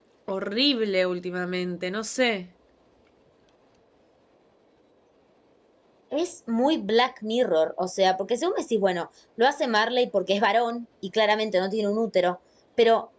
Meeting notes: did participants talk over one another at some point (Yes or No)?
No